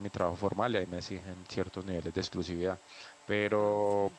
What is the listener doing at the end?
listening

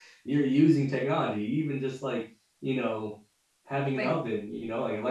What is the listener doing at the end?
listening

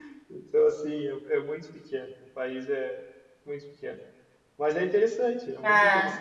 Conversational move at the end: taking over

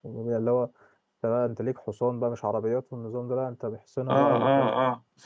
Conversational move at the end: taking over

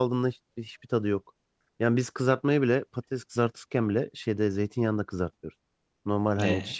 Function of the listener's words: listening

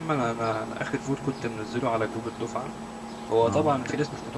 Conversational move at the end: listening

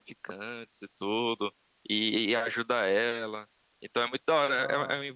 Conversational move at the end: listening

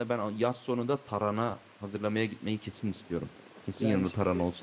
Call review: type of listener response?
taking over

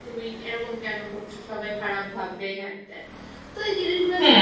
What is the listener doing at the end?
taking over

